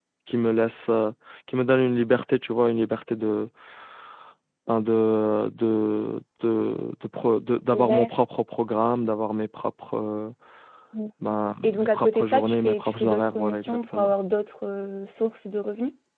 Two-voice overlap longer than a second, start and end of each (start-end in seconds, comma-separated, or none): 11.6-14.1